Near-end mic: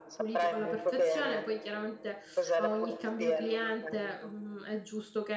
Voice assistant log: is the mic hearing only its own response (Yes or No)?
No